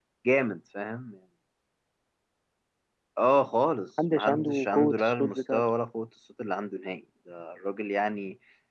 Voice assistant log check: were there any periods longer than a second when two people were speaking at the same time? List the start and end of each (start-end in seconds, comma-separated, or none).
4.1-5.6